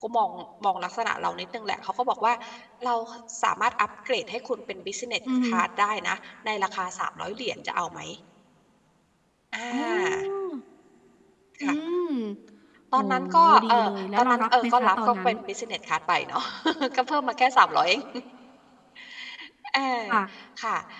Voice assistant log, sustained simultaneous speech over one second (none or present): present